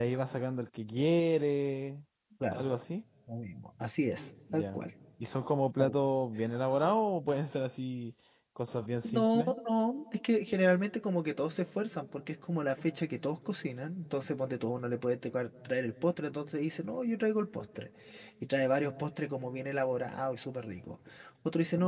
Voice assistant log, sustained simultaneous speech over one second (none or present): none